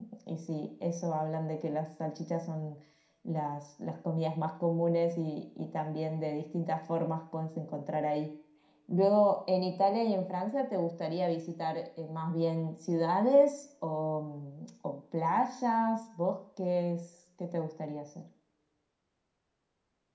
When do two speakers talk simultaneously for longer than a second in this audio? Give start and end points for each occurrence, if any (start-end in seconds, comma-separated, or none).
none